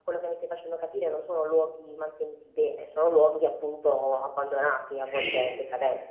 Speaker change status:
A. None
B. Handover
B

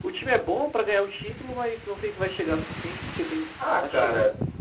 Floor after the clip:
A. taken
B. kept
A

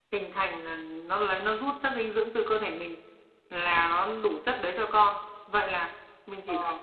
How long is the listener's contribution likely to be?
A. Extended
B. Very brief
B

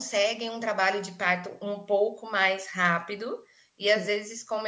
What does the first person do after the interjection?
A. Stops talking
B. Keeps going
B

